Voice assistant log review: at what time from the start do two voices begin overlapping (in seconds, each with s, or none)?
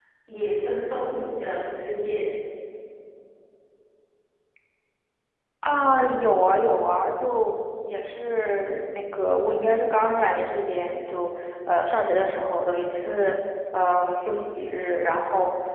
none